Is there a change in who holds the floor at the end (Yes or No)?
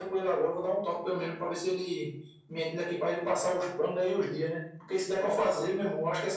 No